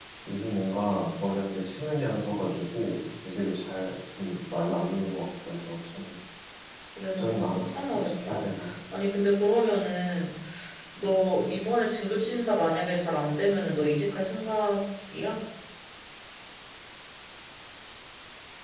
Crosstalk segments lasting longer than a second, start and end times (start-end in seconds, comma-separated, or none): 7.2-8.5